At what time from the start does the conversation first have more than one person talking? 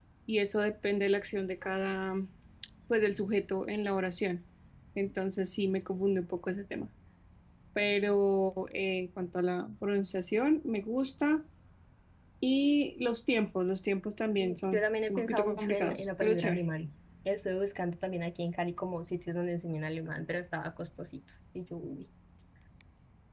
14.4 s

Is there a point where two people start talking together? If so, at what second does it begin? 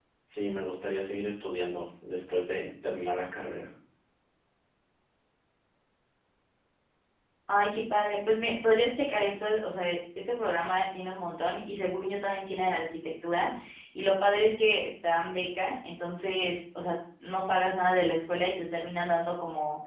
none

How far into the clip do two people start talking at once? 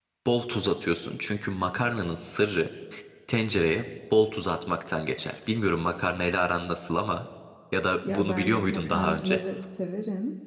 8.1 s

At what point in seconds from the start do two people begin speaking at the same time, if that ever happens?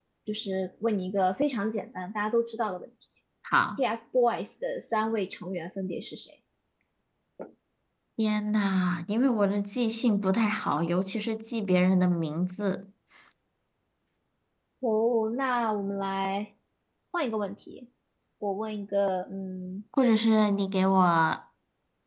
none

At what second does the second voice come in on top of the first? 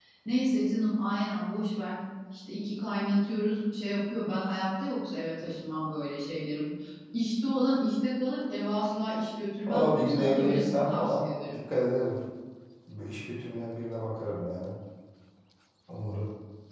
9.7 s

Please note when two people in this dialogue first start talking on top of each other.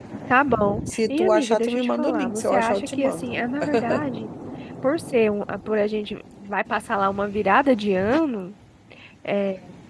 1.1 s

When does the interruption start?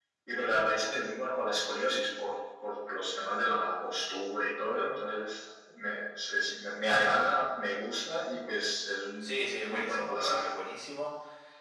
9.2 s

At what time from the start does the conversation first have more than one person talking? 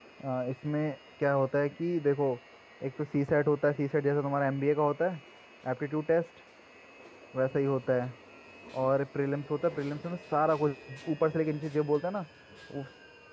none

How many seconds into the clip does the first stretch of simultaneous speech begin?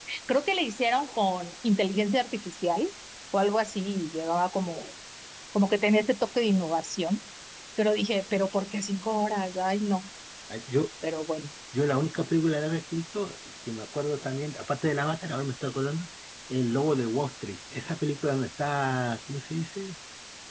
none

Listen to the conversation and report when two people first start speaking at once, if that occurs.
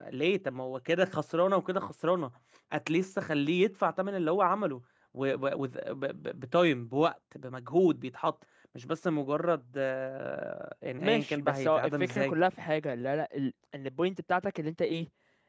11.0 s

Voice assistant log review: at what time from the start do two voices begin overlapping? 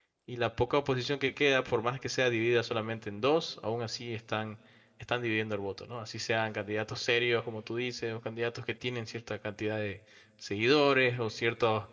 none

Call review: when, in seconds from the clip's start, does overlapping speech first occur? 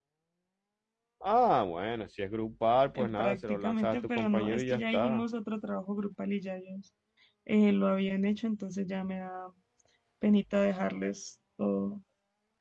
3.0 s

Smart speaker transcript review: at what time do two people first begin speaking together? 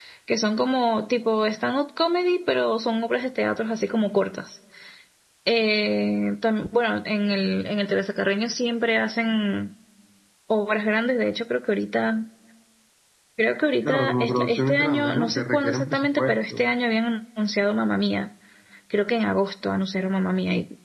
13.8 s

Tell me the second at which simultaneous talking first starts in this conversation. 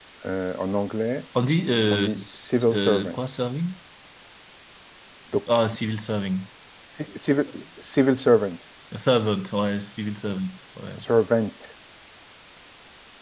1.9 s

